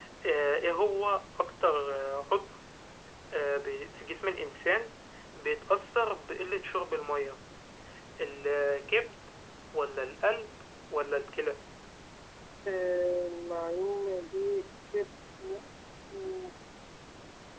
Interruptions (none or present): none